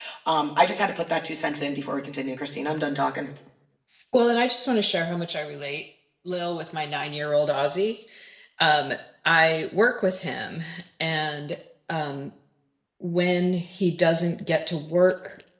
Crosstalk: none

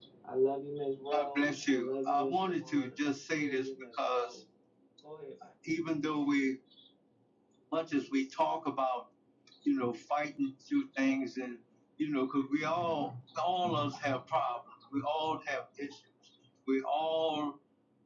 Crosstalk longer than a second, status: present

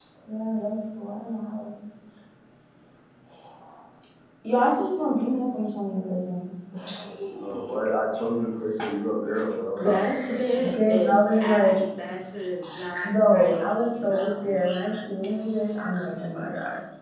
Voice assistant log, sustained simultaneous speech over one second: present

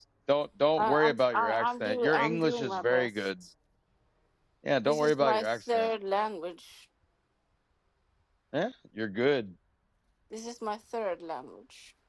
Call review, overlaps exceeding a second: present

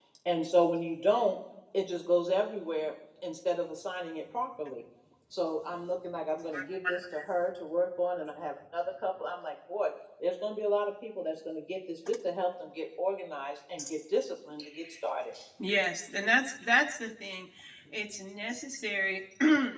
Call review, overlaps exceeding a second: none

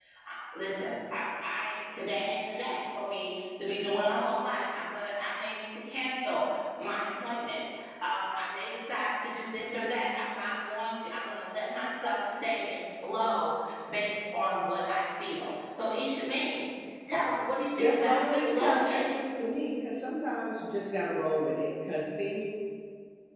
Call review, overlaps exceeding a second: present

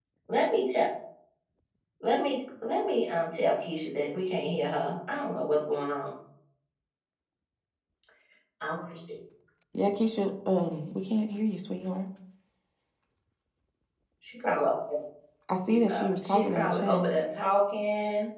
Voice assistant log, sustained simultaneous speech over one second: present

